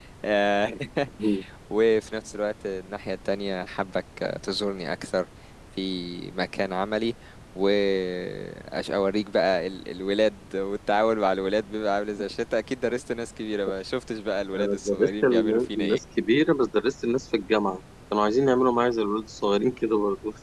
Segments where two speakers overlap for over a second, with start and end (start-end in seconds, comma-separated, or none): 14.5-16.0